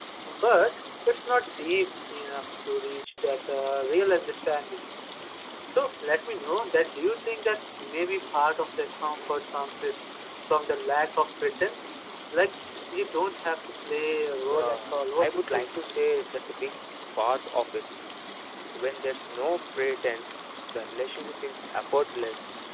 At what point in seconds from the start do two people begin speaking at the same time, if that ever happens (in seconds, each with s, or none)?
14.4 s